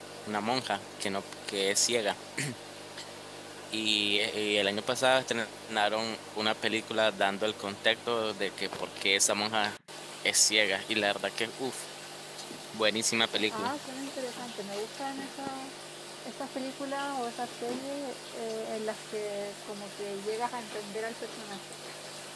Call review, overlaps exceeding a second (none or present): none